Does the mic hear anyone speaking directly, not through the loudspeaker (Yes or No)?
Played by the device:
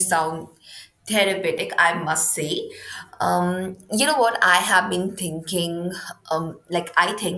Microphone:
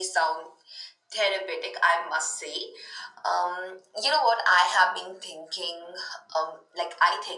No